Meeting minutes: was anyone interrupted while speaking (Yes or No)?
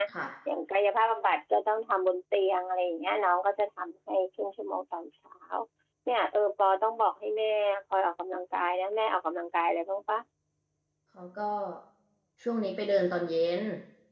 No